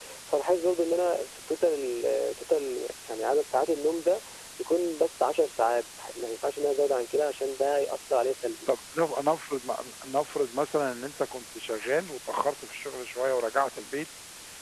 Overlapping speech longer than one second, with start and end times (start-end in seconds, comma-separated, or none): none